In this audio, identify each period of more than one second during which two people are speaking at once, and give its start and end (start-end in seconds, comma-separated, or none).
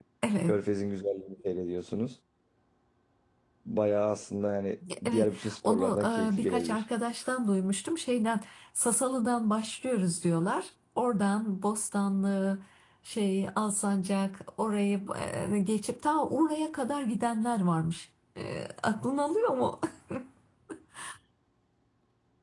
5.0-6.8